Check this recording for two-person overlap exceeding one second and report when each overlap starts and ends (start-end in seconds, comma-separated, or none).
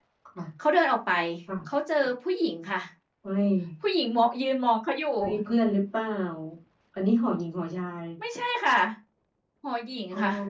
none